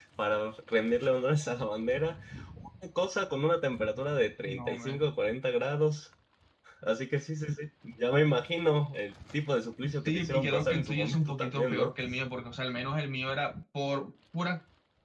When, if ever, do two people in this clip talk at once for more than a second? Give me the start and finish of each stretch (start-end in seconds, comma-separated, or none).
10.0-11.9